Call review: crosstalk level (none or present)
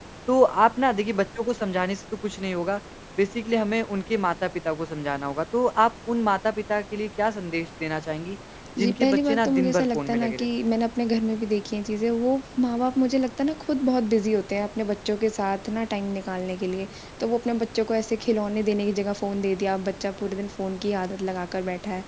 present